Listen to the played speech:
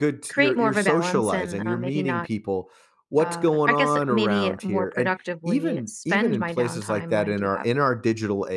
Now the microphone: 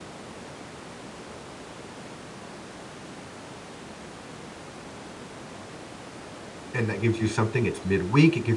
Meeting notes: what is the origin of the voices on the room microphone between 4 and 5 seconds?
neither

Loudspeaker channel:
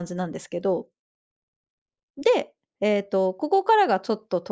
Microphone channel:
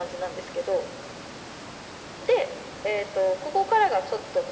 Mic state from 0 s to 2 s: echo only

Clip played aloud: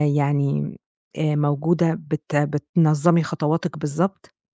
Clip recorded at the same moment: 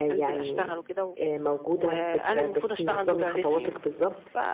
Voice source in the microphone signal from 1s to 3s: both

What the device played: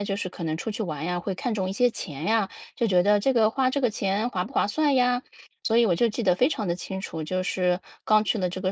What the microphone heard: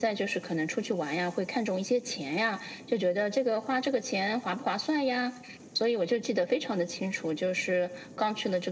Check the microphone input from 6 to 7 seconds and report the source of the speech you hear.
echo only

